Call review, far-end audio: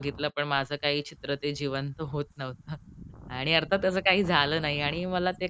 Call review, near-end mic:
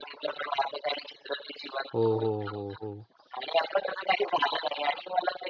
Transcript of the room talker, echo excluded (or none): हो, हो, हो, हो.